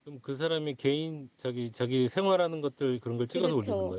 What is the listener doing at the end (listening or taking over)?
taking over